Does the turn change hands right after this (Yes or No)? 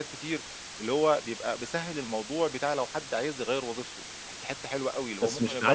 Yes